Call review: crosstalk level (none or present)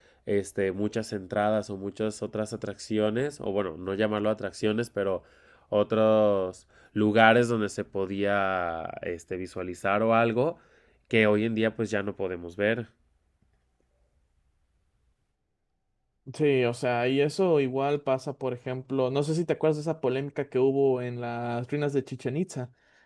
none